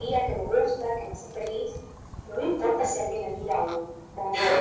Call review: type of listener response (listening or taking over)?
taking over